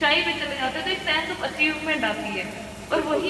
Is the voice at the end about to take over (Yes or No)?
No